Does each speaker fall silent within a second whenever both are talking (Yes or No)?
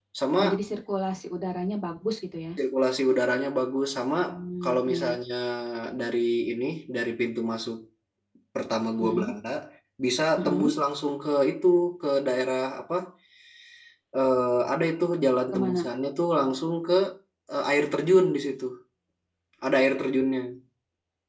Yes